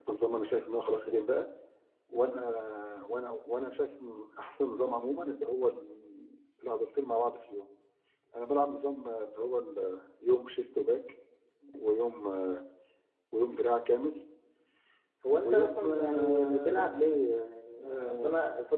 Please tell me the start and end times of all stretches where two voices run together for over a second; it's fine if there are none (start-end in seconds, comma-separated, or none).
15.4-16.9